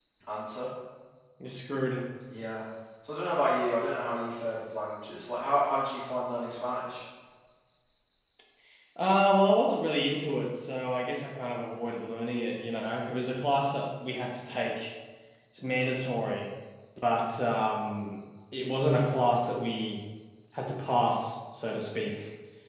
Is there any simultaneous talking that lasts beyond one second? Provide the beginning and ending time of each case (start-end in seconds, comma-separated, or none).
none